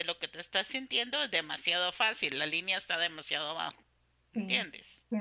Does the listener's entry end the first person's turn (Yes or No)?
Yes